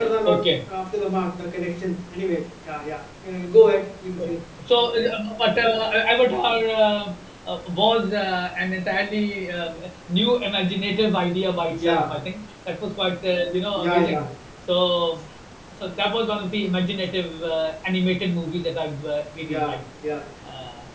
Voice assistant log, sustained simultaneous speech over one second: none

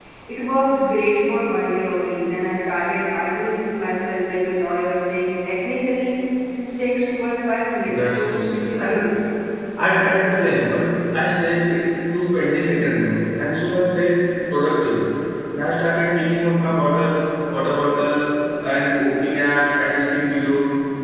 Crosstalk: present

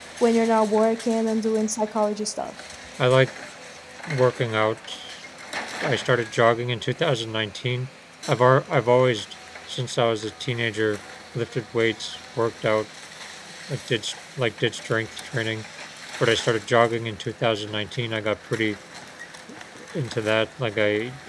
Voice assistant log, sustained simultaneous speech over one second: none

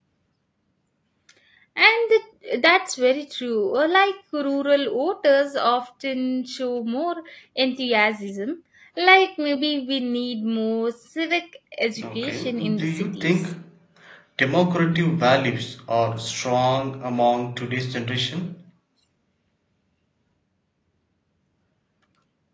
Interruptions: present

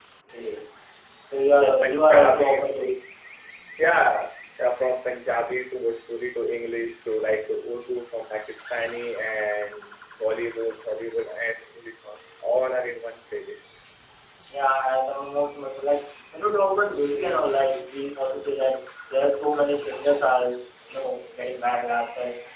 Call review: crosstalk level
present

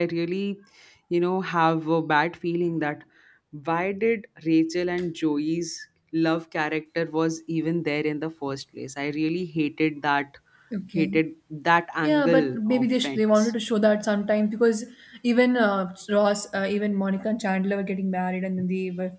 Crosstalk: present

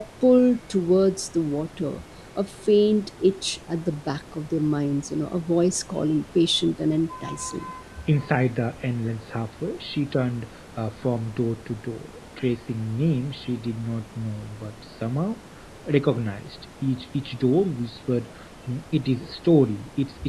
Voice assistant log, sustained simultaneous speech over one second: none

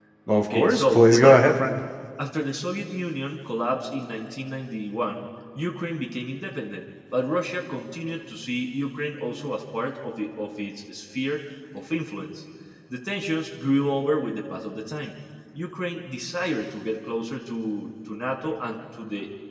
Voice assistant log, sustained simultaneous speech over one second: present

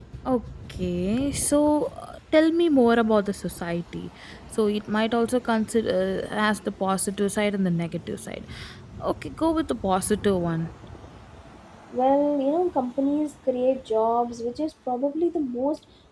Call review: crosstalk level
none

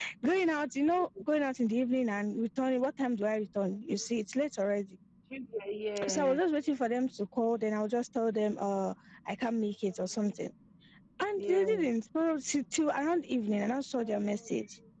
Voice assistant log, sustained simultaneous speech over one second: none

